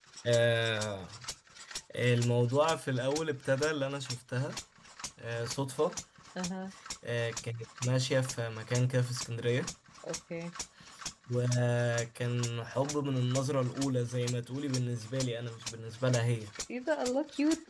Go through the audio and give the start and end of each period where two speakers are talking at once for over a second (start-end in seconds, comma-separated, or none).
none